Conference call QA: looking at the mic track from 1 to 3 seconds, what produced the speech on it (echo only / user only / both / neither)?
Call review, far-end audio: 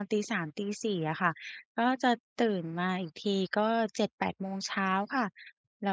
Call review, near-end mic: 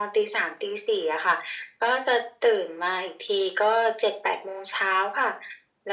echo only